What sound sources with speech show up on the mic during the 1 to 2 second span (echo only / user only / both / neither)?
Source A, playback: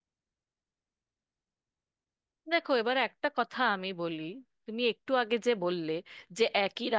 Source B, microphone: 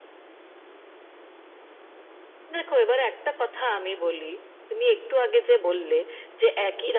neither